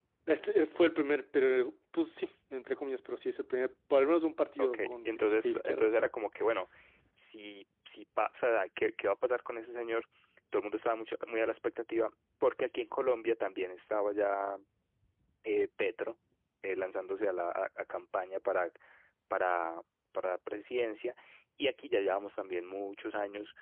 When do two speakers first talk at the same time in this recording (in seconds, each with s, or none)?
4.6 s